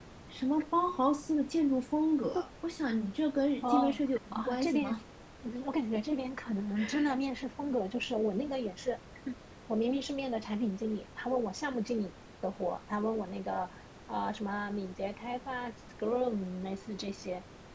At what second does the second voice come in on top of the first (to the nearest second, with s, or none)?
4 s